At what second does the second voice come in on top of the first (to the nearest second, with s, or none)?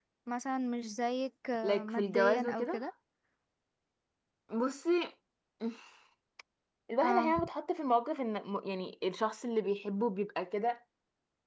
2 s